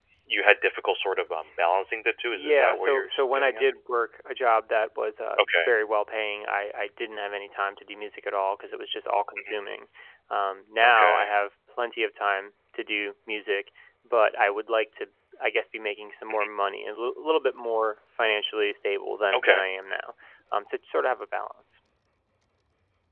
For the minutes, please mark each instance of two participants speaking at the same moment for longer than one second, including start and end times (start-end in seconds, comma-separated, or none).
2.3-3.6